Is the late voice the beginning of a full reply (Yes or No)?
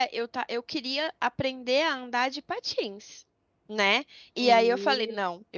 No